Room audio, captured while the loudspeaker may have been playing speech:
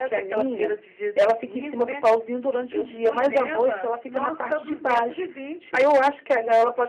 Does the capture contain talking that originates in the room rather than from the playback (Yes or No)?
Yes